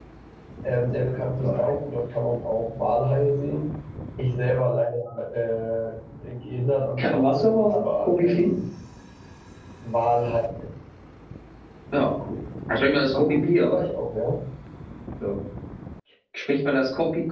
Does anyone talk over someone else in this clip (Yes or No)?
Yes